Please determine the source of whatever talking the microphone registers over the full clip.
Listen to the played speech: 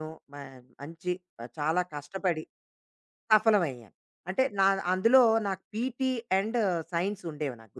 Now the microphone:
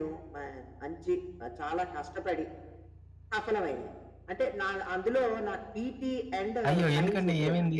both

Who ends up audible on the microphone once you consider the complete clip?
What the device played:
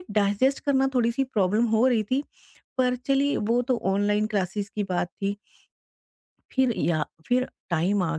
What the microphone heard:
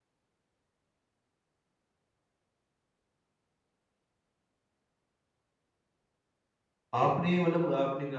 user only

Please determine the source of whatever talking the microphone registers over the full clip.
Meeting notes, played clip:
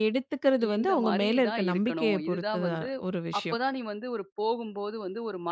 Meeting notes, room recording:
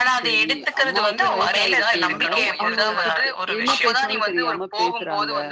both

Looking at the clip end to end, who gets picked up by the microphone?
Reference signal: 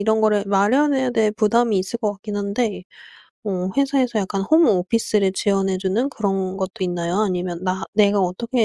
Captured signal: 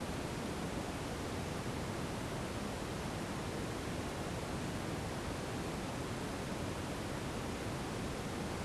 neither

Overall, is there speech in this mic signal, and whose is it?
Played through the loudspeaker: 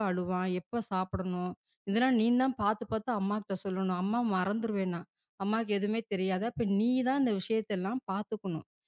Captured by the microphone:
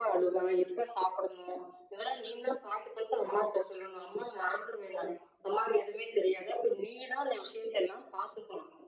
echo only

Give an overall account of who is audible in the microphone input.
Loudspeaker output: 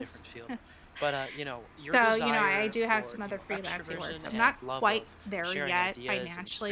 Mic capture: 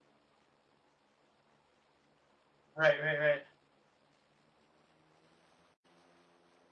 user only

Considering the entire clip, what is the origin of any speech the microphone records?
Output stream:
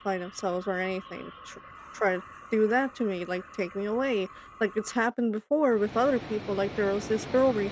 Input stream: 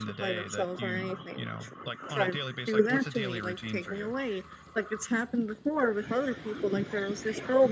both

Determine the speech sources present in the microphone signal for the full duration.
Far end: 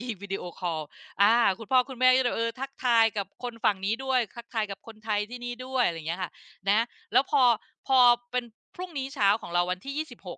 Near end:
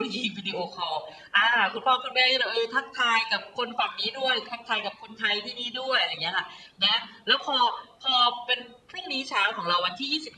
echo only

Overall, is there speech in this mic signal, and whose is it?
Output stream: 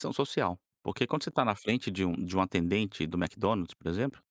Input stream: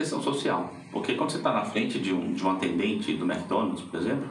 echo only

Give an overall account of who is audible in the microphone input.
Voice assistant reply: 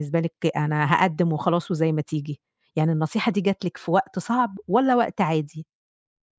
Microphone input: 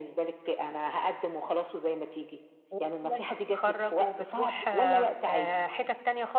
both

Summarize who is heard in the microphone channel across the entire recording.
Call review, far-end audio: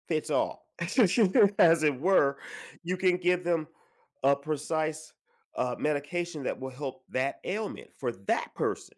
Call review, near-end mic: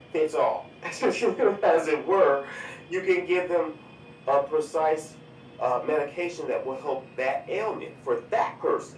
echo only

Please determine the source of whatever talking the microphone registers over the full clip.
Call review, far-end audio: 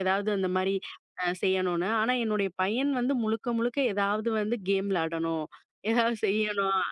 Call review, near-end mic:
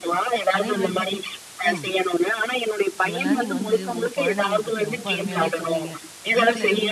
both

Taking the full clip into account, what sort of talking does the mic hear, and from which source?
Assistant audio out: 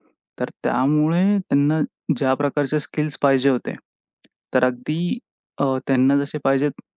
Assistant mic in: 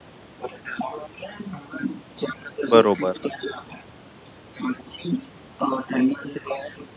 both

